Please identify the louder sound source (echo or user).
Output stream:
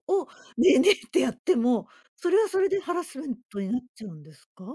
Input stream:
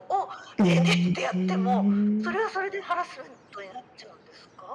user